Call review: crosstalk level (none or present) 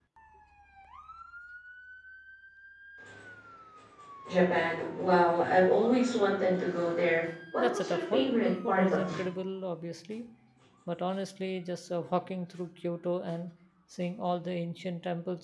present